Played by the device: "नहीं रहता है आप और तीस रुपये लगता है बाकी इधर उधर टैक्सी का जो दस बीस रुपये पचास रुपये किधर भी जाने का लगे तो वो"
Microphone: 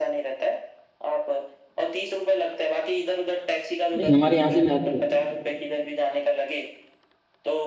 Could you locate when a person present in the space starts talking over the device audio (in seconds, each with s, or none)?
4.0 s